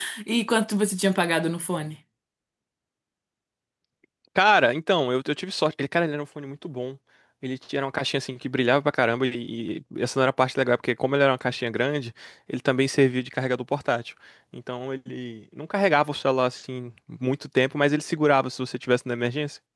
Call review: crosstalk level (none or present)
none